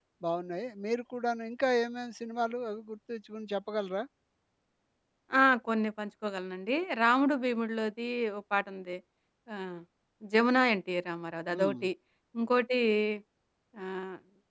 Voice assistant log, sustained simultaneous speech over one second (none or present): none